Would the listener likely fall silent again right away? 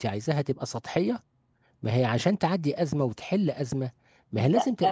No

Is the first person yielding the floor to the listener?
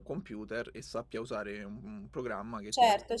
Yes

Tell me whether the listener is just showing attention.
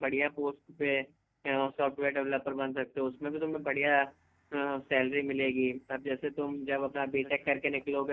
Yes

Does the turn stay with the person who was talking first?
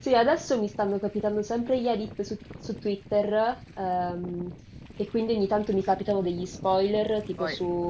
Yes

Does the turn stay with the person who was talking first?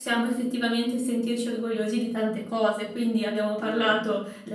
Yes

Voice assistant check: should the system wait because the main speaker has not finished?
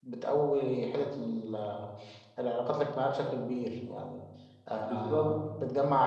Yes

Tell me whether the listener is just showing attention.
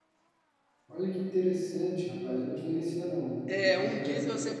No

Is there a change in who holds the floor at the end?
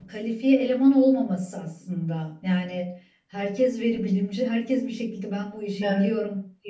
No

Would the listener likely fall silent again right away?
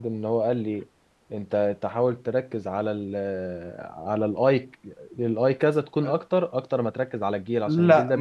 No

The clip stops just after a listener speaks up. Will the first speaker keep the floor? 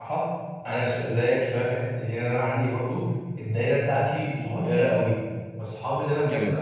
Yes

